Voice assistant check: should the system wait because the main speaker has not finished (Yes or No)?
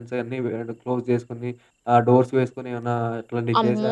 No